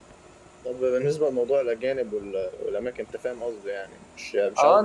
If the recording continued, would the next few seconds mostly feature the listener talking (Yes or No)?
Yes